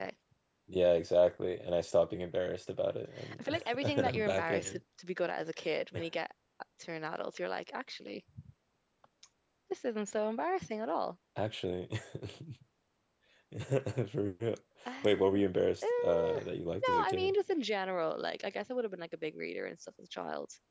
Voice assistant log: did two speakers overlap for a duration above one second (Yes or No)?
Yes